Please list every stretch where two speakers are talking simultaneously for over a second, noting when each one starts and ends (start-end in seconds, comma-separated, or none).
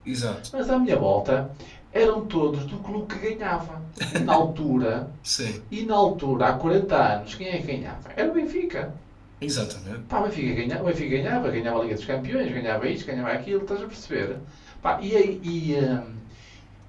none